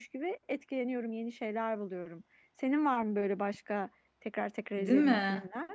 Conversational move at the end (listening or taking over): taking over